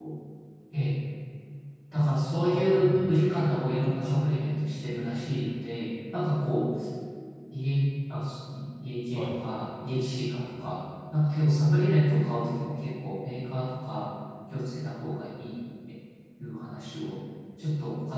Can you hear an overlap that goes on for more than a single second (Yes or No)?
Yes